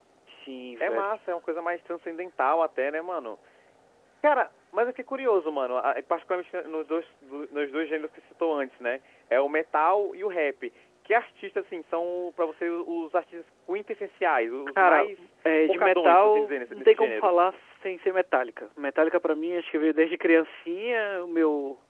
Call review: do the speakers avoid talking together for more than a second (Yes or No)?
No